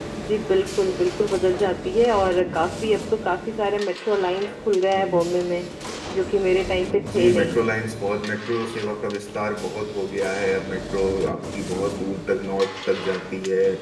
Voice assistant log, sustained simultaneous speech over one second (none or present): none